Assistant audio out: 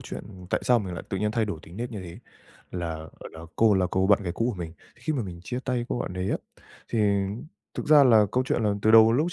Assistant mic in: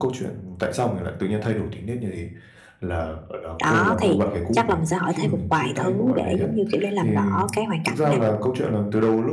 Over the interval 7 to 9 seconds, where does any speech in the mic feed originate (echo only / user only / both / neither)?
both